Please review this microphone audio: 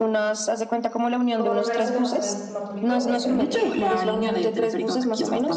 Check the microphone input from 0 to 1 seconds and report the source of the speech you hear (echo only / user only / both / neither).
echo only